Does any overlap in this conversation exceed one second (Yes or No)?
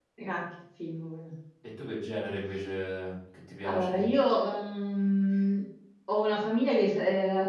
No